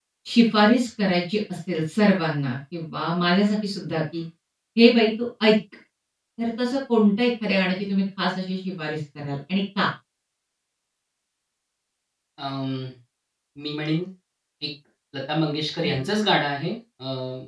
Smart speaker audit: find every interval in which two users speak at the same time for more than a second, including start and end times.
none

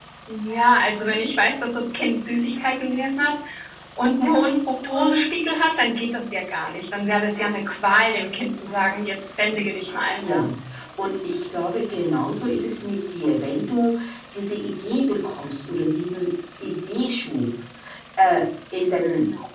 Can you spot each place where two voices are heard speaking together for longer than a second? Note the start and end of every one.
none

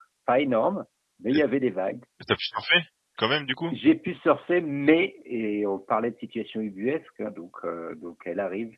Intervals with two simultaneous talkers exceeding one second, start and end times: none

